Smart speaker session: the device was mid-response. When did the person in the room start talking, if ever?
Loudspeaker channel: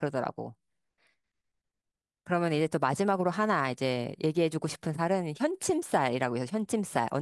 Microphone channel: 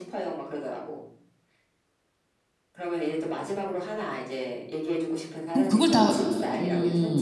5.5 s

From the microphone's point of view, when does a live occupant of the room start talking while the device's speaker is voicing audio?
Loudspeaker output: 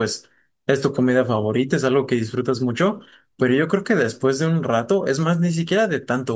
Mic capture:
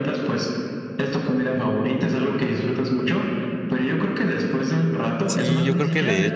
5.3 s

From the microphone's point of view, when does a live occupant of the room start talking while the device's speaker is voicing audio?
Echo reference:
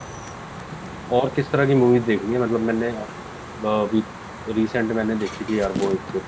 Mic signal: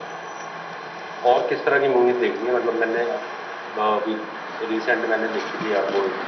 none

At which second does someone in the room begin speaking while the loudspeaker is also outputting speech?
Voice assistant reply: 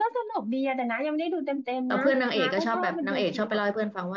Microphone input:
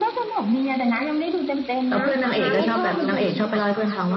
2.2 s

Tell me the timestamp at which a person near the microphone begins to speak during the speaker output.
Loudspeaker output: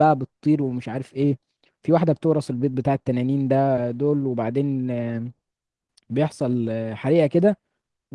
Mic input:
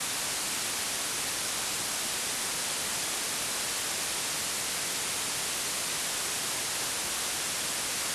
none

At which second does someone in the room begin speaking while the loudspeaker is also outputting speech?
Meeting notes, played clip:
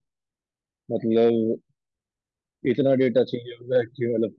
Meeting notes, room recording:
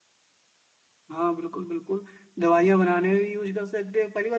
1.1 s

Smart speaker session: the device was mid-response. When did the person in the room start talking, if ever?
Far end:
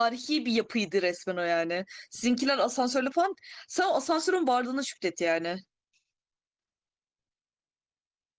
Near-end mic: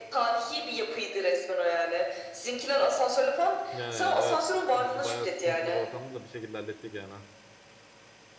3.7 s

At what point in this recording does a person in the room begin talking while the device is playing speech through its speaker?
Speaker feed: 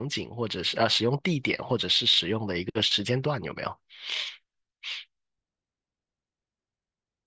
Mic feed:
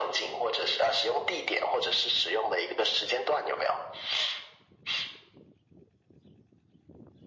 none

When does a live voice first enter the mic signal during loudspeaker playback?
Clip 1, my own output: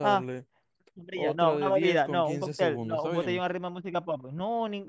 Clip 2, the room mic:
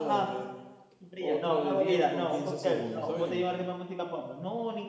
none

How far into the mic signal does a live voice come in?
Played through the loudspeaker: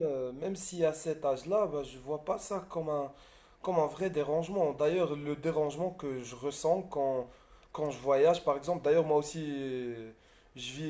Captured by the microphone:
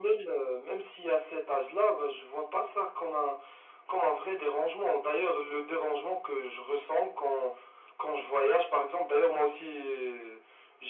none

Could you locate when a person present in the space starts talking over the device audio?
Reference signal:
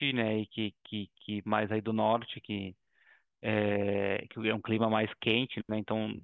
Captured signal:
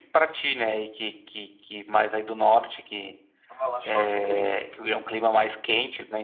3.5 s

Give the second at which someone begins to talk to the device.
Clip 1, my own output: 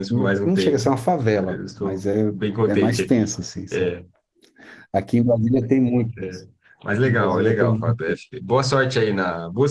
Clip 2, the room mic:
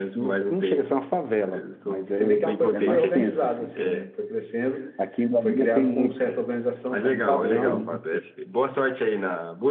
2.0 s

